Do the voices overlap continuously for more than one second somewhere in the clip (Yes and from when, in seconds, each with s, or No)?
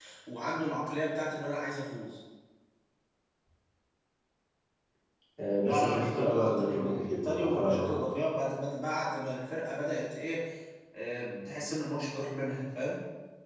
Yes, from 5.6 s